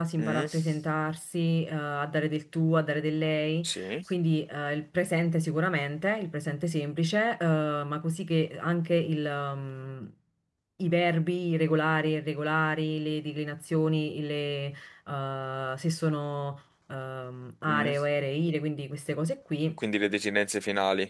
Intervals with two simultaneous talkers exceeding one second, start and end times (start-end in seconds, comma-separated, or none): none